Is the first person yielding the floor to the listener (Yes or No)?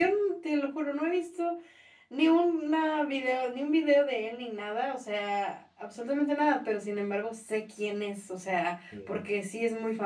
No